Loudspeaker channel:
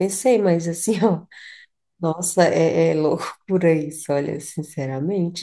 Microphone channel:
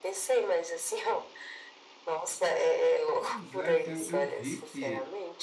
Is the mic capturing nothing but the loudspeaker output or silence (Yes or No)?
No